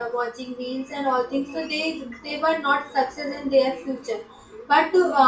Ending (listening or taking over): listening